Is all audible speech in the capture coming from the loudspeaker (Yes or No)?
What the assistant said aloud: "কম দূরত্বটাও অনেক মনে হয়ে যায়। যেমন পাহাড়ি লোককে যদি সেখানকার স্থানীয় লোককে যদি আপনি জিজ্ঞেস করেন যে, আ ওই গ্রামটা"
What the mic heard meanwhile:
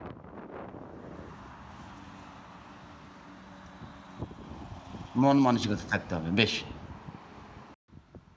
No